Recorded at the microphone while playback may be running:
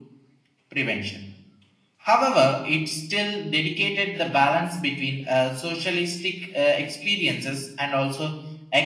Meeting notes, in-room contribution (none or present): none